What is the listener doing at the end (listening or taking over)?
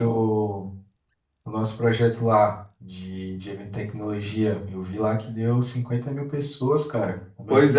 taking over